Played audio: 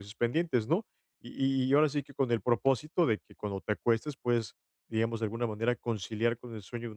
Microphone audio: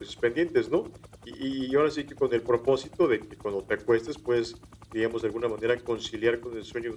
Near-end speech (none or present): none